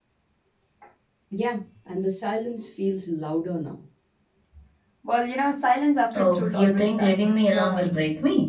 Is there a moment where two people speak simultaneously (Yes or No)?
Yes